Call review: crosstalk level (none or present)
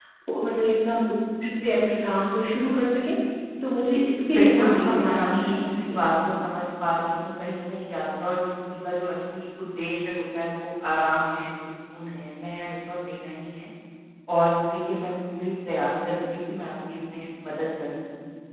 present